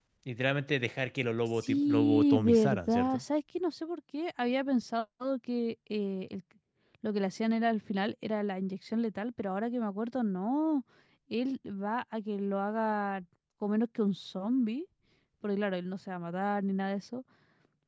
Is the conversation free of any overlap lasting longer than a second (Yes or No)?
No